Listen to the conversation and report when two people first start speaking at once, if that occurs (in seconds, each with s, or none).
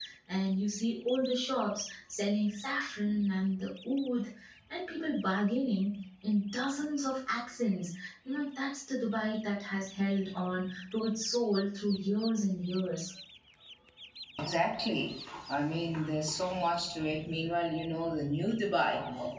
none